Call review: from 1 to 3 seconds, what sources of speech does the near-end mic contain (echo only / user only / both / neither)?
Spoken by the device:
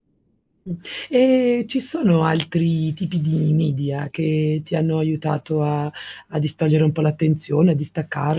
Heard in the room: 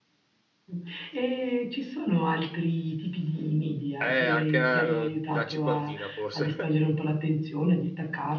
echo only